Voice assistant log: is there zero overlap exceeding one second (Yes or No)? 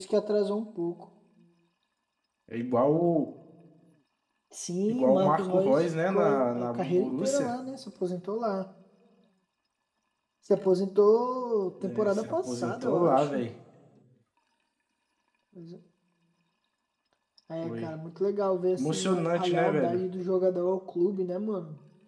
No